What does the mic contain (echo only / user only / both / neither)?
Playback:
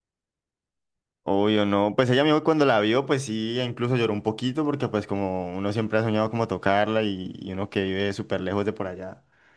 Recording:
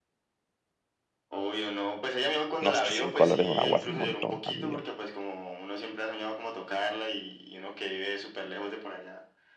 both